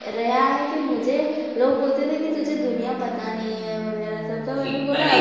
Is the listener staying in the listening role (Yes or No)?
No